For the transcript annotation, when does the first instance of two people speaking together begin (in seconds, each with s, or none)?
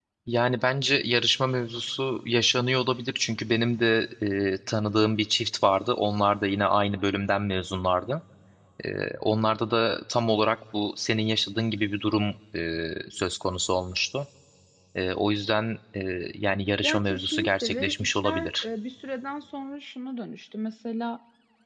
16.8 s